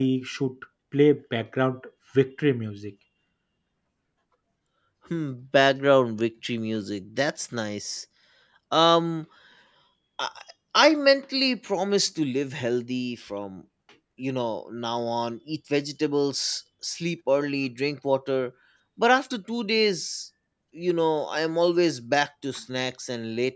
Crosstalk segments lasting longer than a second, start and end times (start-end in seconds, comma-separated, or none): none